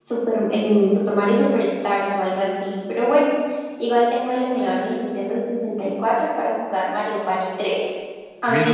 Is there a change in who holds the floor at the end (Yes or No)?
Yes